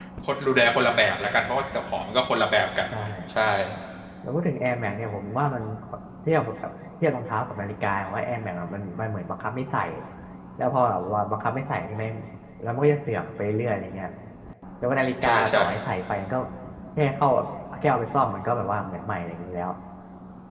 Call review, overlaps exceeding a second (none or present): none